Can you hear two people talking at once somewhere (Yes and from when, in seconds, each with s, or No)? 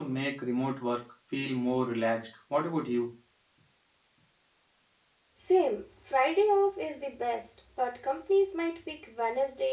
No